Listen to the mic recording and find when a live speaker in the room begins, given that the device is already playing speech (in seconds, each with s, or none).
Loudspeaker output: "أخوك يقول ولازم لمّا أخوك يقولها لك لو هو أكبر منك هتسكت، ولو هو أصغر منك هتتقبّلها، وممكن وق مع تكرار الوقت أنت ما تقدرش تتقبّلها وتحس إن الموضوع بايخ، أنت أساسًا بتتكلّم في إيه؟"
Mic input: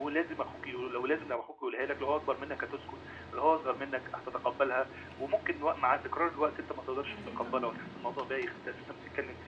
7.1 s